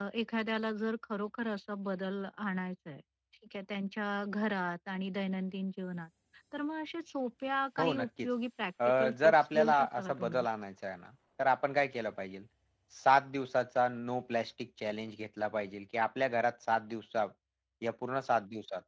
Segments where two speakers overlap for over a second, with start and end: 8.8-10.4

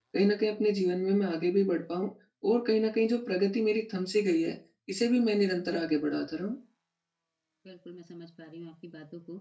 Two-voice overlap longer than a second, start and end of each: none

